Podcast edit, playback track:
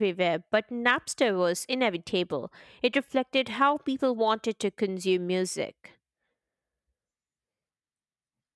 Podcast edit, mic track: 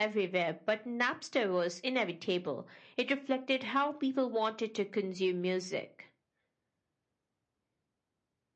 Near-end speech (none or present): none